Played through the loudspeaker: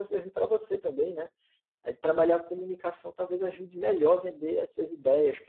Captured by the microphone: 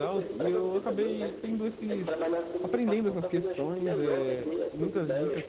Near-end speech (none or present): present